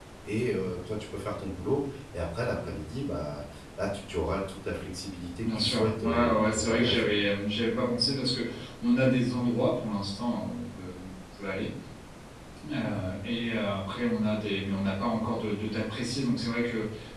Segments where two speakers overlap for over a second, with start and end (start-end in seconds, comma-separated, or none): 5.4-7.2